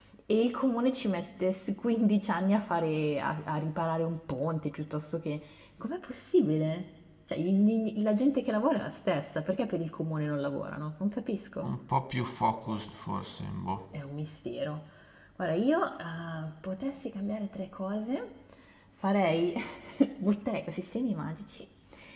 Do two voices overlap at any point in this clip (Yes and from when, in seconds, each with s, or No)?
No